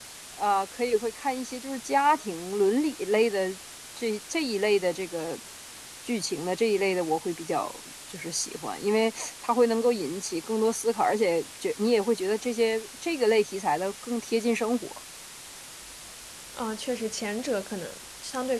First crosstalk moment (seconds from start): none

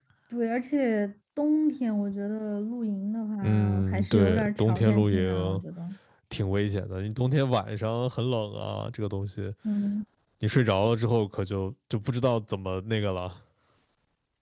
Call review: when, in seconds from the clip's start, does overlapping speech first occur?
3.4 s

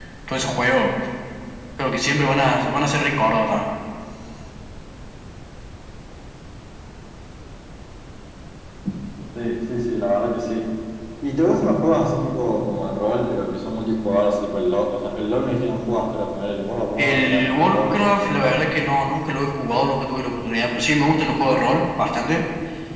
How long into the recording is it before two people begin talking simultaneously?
17.0 s

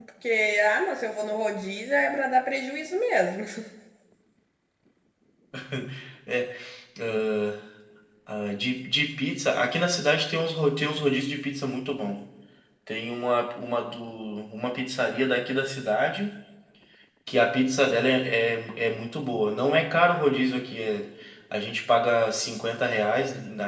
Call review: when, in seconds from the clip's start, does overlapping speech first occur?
none

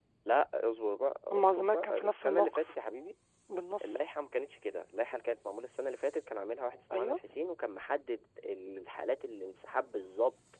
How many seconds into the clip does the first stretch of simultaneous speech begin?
1.3 s

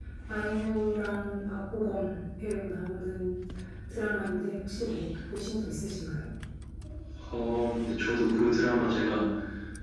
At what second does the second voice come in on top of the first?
none

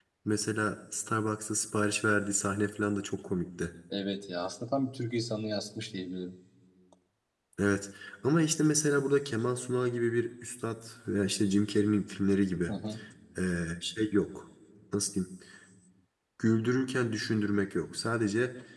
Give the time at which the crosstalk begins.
none

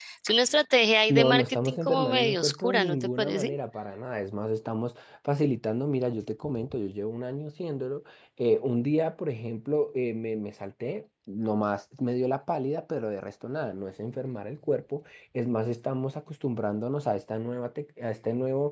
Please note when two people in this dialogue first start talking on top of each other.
1.1 s

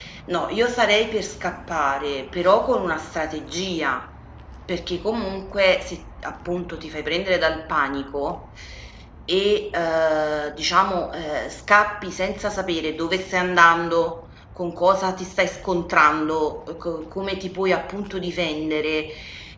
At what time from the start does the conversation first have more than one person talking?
none

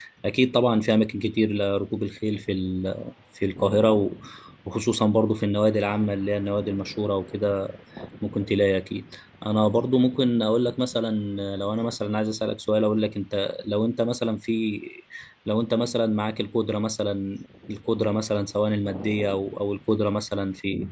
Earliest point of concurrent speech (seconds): none

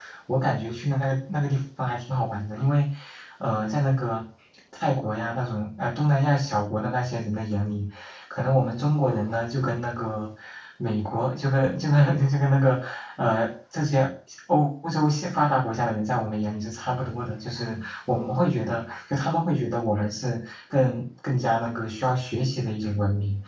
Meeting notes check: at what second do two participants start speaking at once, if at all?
none

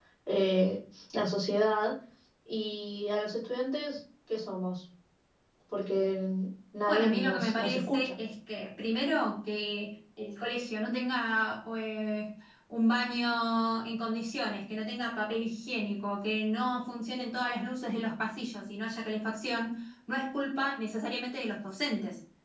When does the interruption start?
6.9 s

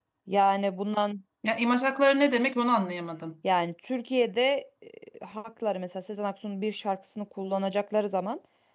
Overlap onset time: none

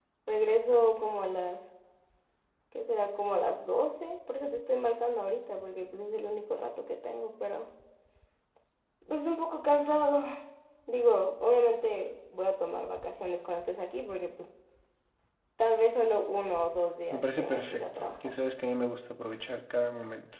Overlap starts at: 17.1 s

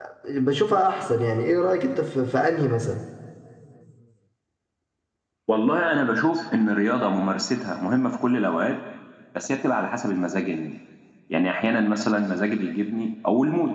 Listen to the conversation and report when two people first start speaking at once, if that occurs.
none

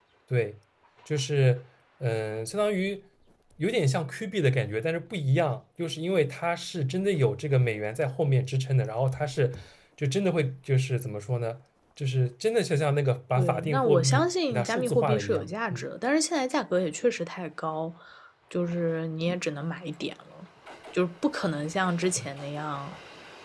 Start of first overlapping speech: 13.3 s

